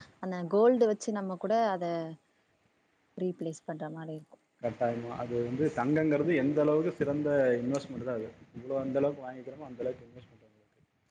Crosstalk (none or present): none